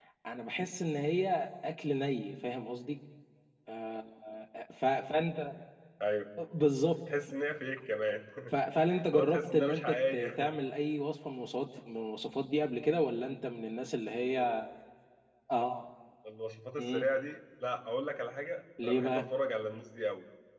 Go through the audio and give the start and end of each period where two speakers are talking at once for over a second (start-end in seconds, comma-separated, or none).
9.2-10.5